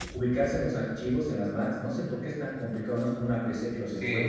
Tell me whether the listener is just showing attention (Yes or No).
No